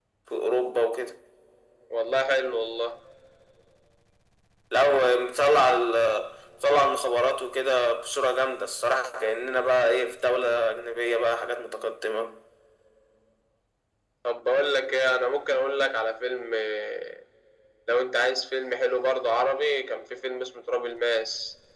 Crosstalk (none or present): none